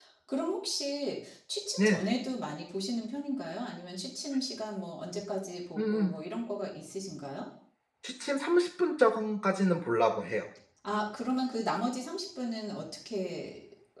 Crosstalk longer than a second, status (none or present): none